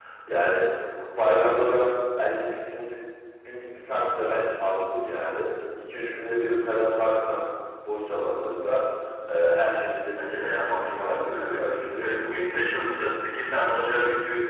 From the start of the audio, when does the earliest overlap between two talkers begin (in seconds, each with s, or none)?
10.2 s